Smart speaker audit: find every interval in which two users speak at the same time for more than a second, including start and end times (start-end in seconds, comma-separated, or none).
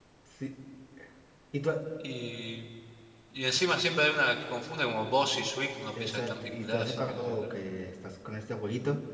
6.0-7.5